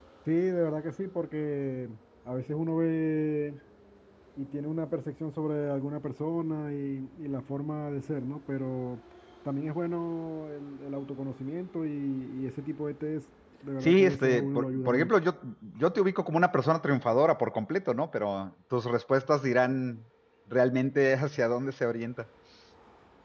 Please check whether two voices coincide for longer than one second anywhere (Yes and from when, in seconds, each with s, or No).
Yes, from 13.8 s